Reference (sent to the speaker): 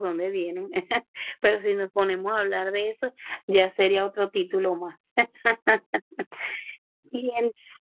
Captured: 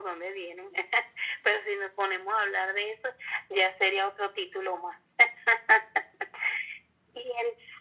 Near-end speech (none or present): none